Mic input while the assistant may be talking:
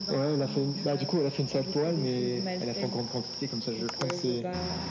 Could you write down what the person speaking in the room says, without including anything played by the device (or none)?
none